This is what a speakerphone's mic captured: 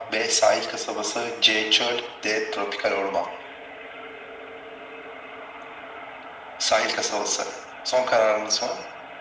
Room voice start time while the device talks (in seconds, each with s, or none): none